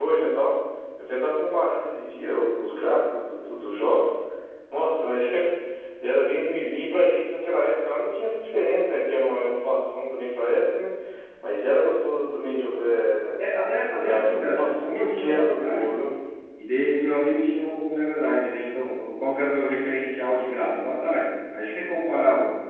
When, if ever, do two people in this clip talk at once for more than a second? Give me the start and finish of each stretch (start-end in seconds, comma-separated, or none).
13.9-16.0